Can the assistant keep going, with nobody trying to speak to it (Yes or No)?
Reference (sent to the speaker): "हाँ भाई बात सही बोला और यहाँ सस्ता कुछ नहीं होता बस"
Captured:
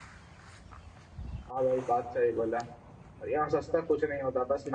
Yes